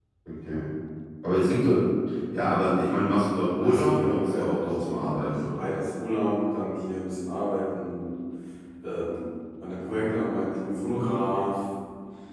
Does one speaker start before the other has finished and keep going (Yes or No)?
Yes